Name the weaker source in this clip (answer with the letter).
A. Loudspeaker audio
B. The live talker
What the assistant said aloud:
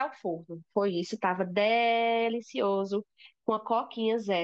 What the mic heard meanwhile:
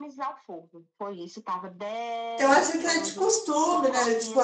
A